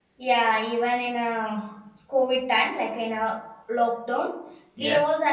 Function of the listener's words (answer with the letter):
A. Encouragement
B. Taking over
A